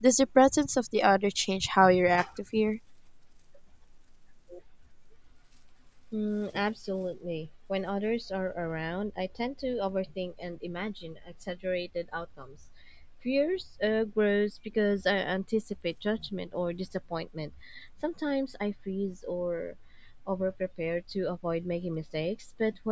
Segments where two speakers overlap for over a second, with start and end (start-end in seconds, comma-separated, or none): none